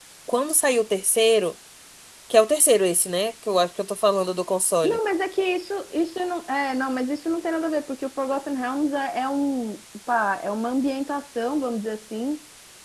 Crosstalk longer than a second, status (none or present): none